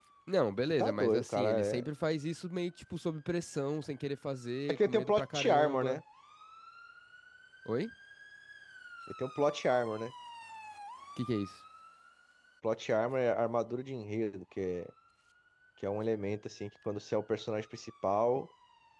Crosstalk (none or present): present